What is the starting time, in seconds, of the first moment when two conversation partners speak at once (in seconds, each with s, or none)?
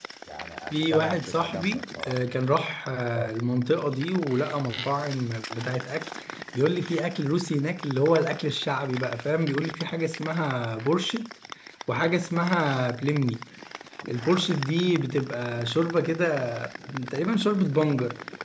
0.7 s